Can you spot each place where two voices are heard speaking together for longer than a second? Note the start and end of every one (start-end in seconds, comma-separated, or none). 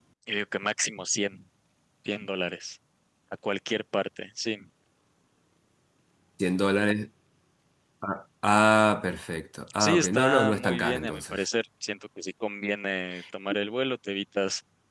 9.8-11.4